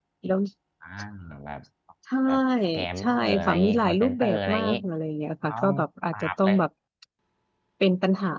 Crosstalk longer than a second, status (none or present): present